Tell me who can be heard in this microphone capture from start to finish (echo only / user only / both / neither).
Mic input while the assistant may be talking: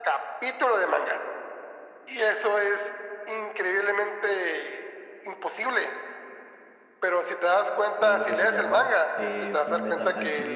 both